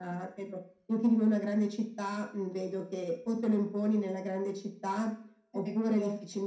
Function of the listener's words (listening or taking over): listening